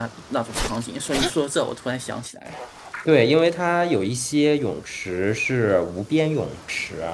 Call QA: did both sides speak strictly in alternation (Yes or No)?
Yes